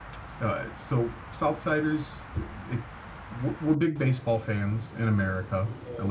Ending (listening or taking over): taking over